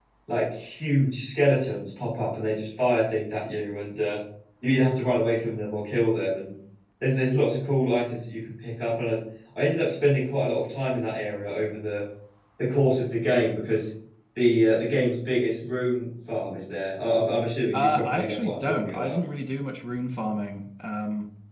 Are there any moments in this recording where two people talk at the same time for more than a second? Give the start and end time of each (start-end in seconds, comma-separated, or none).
17.7-19.2